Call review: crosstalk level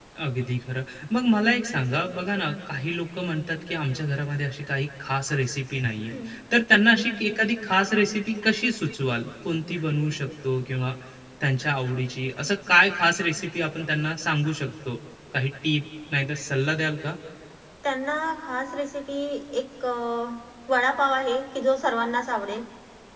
none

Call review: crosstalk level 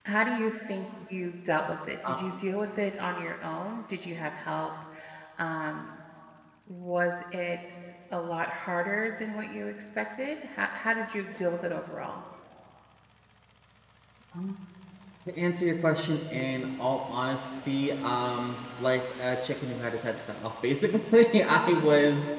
none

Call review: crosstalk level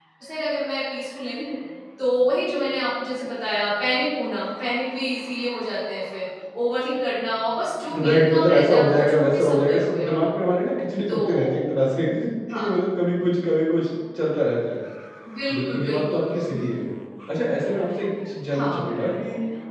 present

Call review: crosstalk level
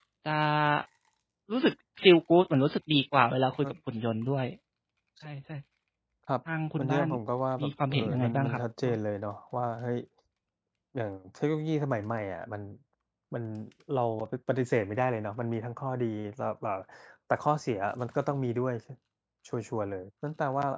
present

